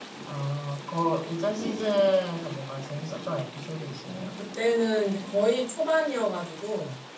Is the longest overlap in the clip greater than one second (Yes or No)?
No